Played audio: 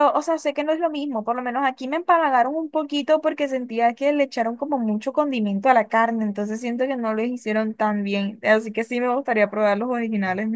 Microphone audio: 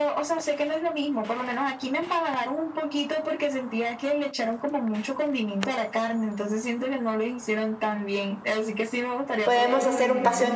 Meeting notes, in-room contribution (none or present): present